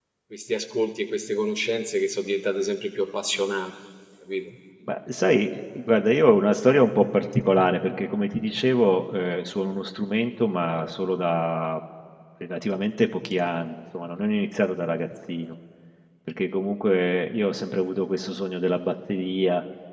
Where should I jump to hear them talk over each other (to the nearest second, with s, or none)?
none